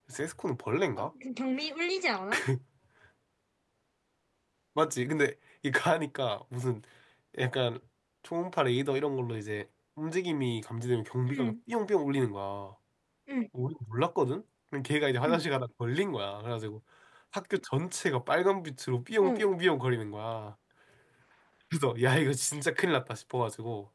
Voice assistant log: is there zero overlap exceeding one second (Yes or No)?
Yes